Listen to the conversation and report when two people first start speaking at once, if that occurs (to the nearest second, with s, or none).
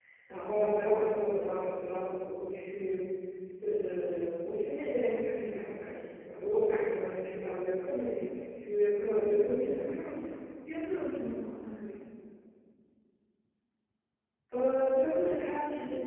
9 s